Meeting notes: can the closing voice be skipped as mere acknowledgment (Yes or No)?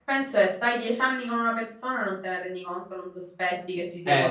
No